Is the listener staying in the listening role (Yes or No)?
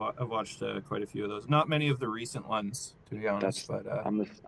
No